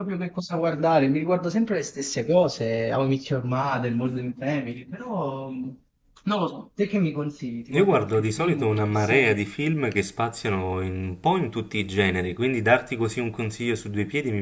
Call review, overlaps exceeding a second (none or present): present